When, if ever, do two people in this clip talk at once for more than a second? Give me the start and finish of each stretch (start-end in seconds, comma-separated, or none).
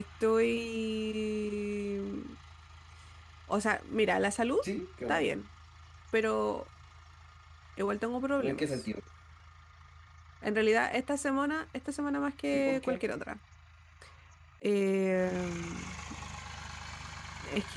none